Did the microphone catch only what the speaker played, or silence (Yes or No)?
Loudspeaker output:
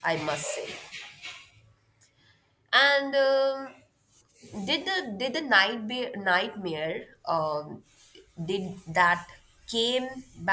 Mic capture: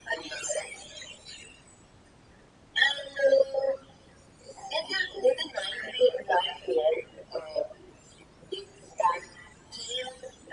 Yes